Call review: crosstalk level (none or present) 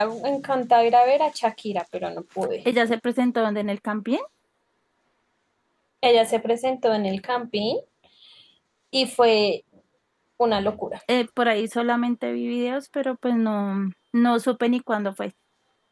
none